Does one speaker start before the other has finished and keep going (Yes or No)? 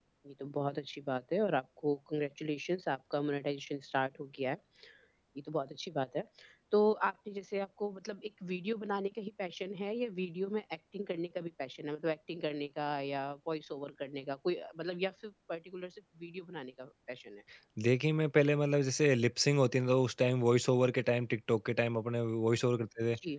No